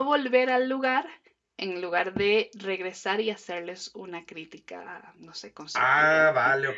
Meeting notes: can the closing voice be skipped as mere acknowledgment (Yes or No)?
No